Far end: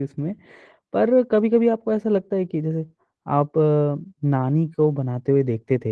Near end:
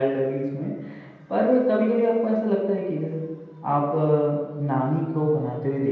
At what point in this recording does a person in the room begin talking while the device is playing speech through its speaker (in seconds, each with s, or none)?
none